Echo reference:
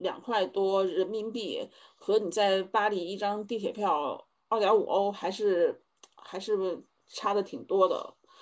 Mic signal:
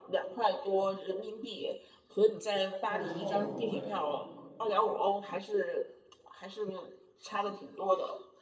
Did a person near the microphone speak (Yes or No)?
Yes